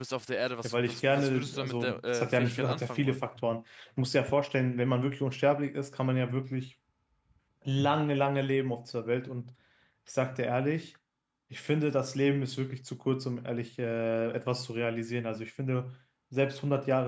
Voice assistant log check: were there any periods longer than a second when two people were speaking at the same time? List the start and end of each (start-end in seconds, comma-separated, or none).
0.6-3.2